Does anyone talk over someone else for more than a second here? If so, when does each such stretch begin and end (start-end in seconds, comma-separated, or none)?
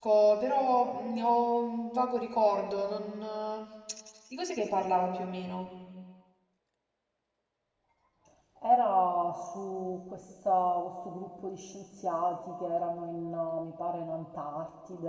none